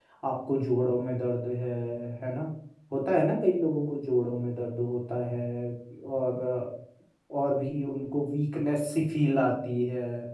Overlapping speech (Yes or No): No